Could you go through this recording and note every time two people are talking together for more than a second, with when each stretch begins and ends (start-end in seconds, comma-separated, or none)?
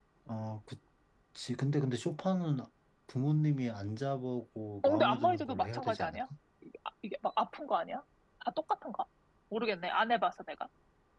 4.8-6.2